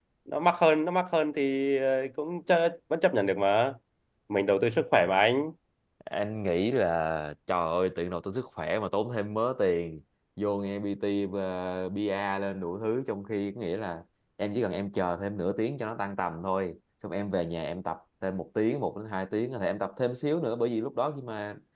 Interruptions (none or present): none